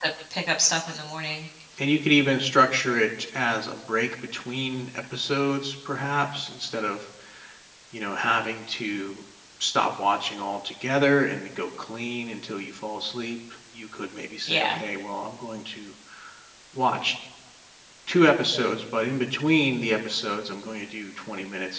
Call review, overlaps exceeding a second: none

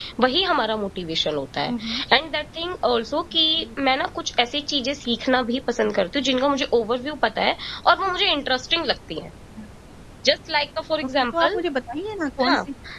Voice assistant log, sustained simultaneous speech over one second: none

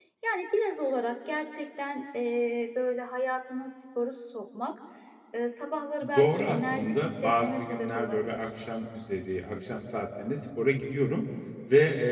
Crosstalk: present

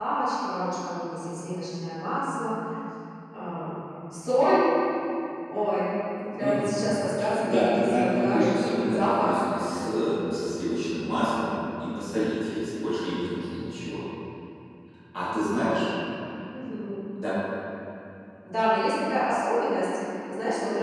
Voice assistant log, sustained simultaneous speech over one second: present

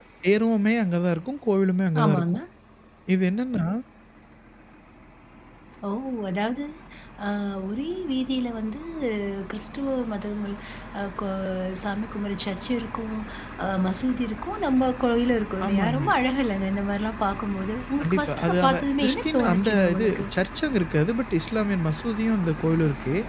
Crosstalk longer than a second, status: present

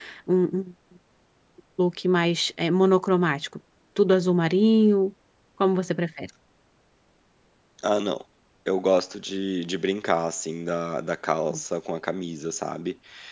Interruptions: none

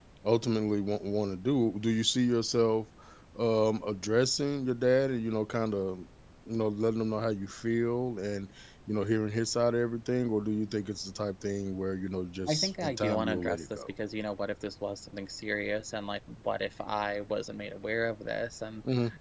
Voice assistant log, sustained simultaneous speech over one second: present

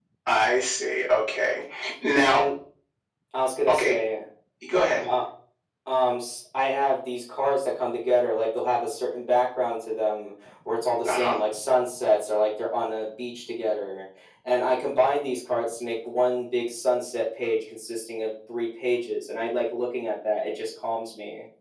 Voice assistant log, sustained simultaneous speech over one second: none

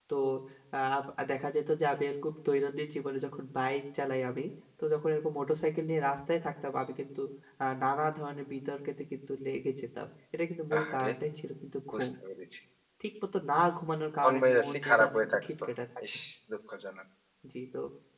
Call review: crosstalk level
present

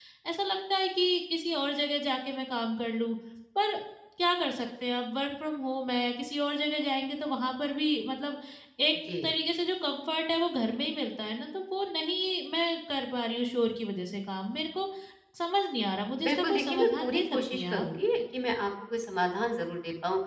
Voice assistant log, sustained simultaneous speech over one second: present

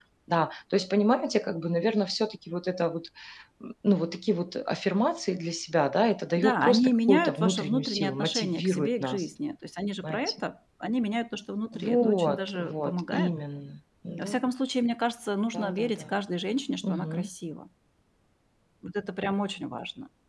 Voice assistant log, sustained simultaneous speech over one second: present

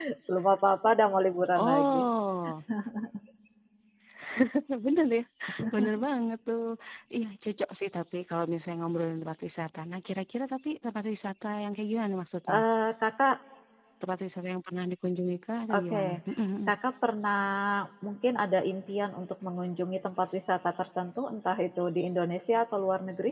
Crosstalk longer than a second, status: none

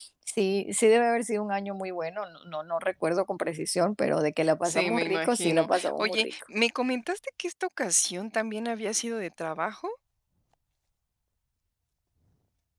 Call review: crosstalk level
present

